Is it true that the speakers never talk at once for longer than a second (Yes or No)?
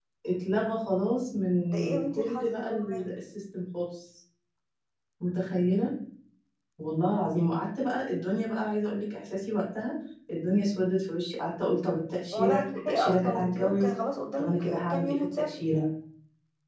No